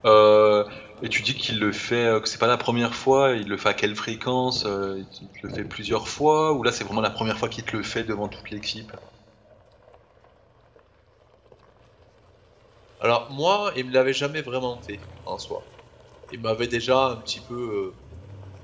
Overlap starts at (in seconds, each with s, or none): none